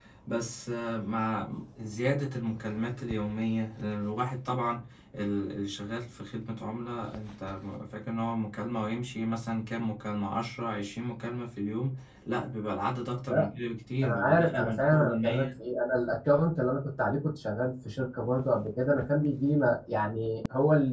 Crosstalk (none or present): present